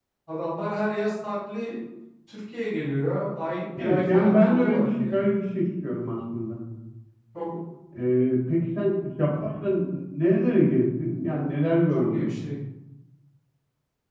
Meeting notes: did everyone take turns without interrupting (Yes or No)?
No